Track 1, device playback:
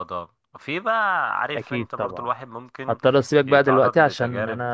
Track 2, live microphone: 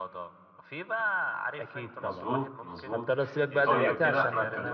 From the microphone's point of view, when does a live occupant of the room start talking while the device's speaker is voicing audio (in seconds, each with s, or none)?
2.0 s